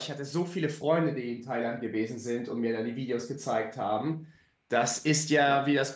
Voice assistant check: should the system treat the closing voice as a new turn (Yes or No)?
No